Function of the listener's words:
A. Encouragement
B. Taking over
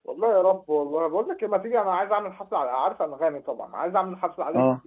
A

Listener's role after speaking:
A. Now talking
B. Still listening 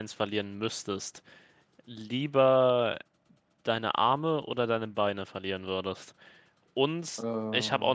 B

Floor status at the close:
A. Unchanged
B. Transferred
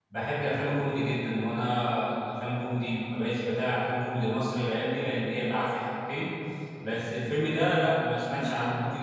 A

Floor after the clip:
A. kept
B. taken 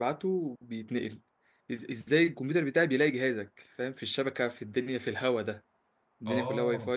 A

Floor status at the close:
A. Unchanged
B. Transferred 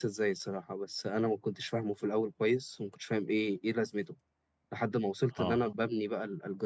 A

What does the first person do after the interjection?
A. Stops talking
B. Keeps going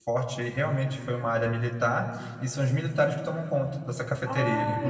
A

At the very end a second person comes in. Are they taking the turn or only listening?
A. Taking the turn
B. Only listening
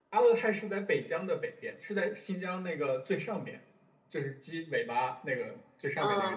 B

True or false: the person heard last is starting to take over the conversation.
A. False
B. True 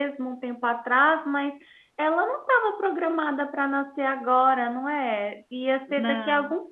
A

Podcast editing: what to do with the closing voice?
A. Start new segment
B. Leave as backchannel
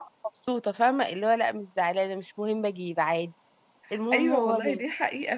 A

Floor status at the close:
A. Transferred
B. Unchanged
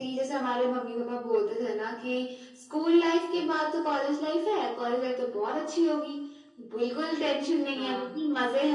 B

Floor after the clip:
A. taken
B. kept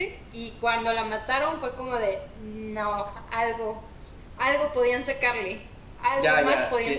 A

